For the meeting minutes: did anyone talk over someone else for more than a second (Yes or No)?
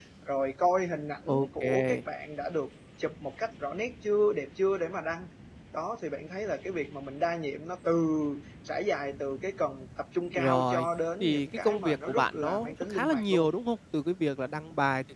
Yes